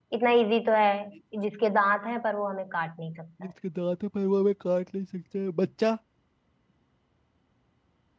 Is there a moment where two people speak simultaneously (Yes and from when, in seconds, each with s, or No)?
No